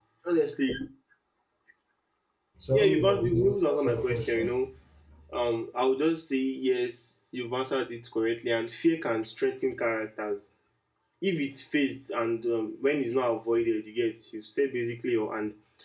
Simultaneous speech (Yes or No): Yes